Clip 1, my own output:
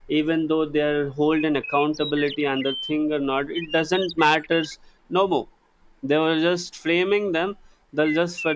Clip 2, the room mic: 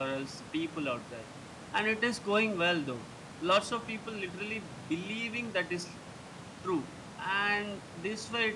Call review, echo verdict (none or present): none